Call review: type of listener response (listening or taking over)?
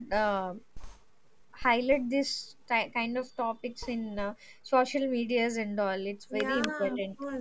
taking over